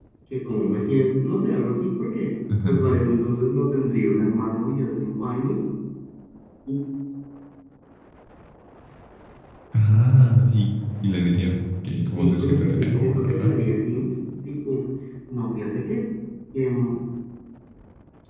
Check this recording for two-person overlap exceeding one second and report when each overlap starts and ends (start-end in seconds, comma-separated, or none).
12.2-13.6